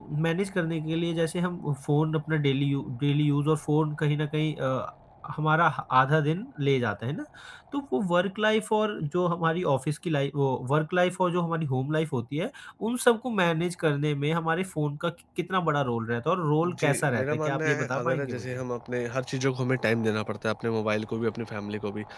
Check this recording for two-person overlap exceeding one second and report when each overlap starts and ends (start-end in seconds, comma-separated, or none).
16.6-18.6